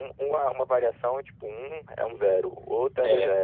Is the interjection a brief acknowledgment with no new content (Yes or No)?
No